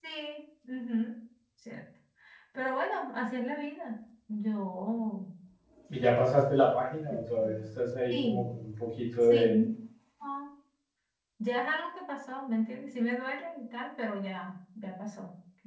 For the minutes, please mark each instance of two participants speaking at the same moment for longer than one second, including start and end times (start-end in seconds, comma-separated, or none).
none